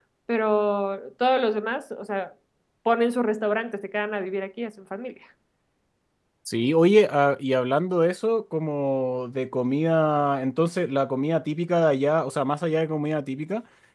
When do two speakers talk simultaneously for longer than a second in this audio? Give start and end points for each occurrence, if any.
none

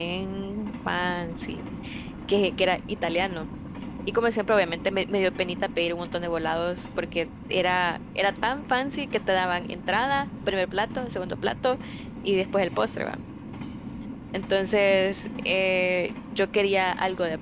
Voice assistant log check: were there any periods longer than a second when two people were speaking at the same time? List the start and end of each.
none

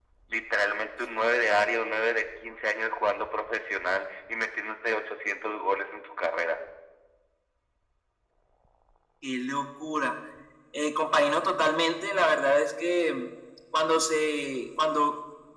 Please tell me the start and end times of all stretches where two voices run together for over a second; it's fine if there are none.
none

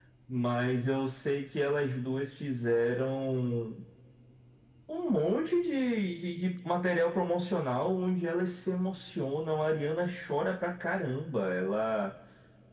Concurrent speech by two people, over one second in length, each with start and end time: none

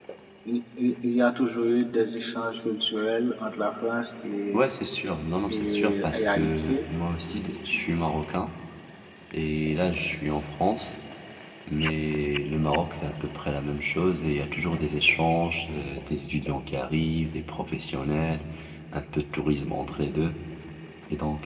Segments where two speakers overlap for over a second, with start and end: 5.5-6.8

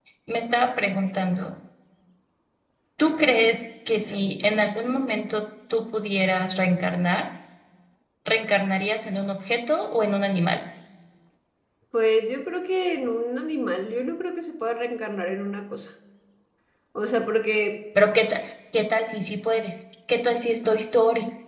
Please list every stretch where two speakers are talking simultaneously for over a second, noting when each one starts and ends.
none

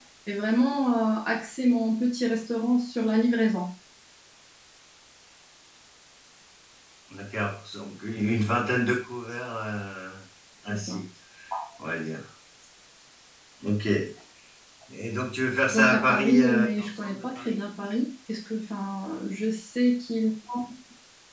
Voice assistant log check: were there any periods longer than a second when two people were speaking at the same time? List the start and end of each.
15.7-17.6

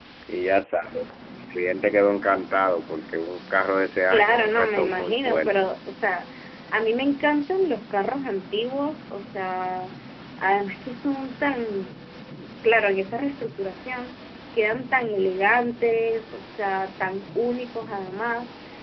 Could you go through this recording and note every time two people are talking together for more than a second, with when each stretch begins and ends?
4.1-5.7

